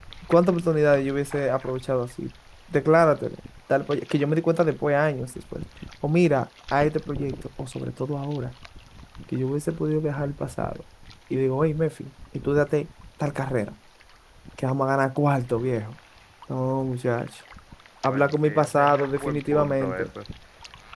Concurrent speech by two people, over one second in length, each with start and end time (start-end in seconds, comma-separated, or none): 18.1-20.1